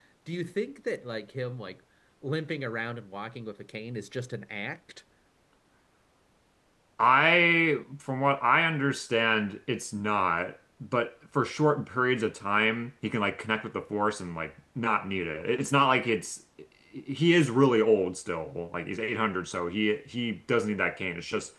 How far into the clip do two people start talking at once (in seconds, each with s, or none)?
none